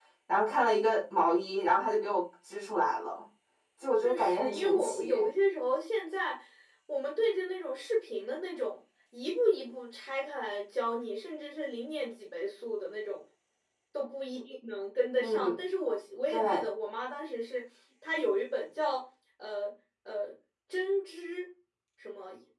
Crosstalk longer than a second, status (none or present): present